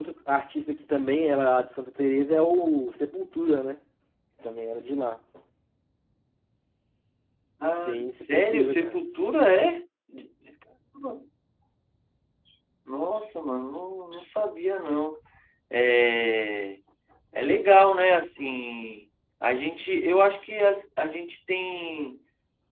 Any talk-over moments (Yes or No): Yes